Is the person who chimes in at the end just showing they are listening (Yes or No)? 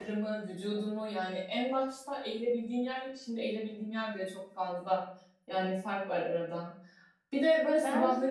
Yes